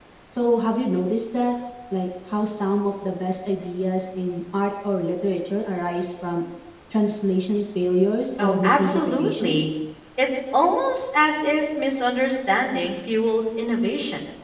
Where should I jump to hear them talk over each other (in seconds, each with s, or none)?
8.4 s